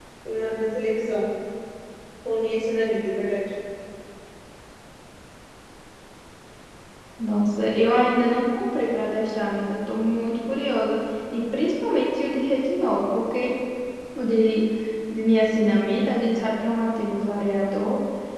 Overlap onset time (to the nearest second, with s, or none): none